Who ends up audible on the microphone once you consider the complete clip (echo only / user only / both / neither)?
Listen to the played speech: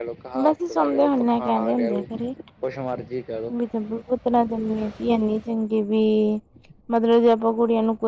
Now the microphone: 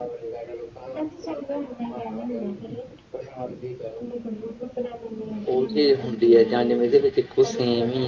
both